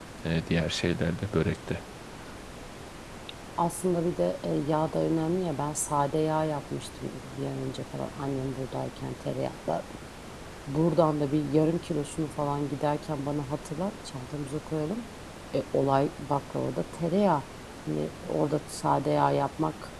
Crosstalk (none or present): none